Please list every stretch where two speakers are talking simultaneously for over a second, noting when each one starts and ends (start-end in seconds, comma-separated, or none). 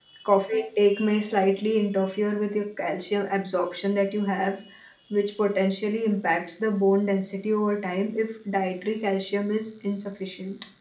none